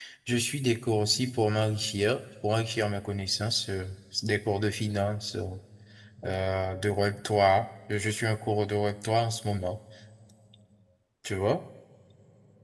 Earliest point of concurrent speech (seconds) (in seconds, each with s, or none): none